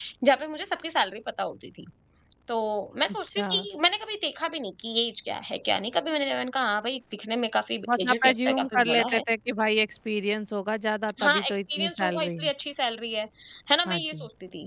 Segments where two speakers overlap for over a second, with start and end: 8.0-9.2, 11.2-12.5

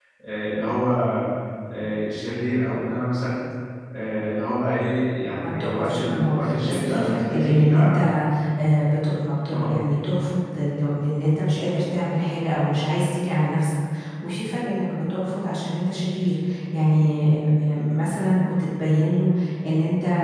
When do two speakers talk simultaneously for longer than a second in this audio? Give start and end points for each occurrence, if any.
5.4-8.0

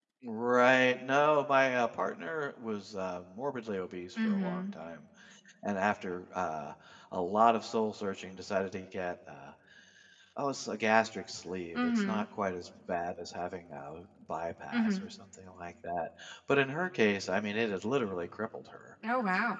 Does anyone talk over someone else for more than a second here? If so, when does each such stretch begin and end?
none

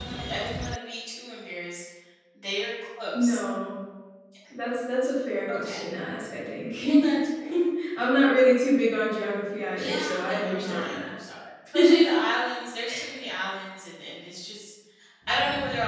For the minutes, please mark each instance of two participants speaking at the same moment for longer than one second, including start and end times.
9.7-11.1

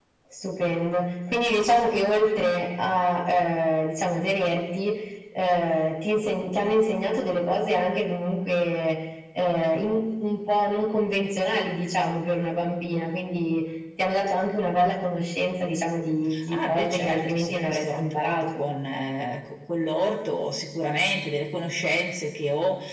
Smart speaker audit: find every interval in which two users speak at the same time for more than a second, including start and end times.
16.5-18.6

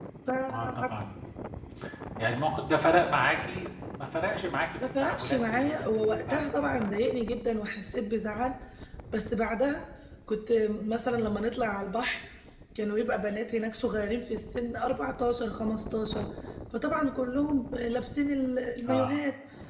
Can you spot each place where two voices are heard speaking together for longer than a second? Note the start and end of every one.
4.8-6.8

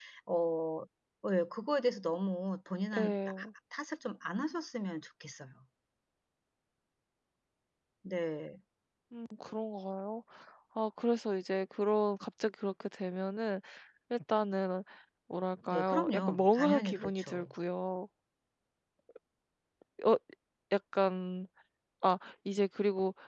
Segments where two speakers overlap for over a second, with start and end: 15.7-17.5

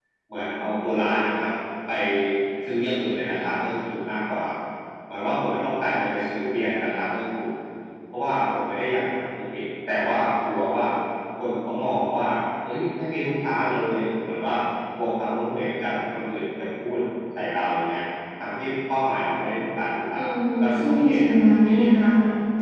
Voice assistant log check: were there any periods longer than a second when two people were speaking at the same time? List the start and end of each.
20.6-22.0

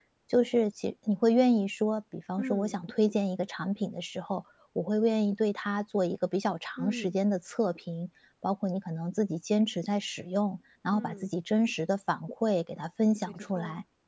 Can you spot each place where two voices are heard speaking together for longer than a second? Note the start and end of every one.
none

